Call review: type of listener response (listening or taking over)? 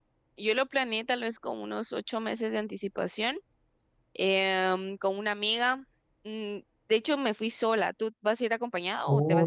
taking over